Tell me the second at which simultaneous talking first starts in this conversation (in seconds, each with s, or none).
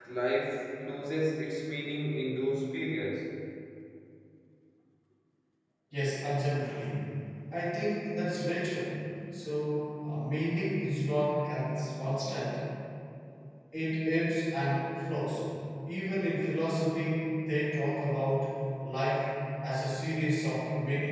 none